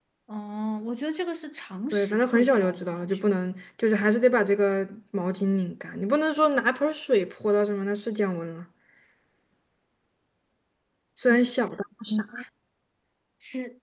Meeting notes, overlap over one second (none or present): present